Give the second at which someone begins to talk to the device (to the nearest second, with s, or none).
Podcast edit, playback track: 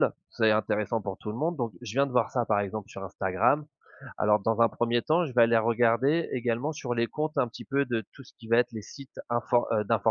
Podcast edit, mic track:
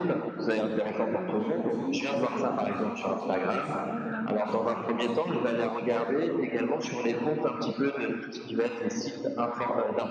1 s